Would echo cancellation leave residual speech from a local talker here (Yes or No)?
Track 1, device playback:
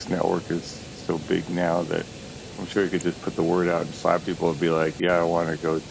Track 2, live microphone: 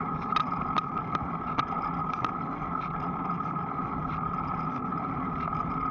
No